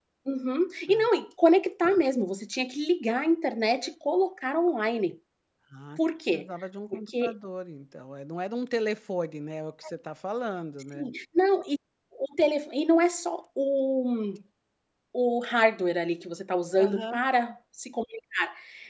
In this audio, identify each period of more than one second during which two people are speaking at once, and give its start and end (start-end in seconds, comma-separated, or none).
none